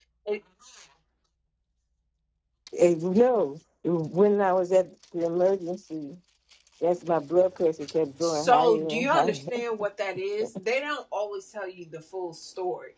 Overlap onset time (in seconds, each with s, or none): 8.2 s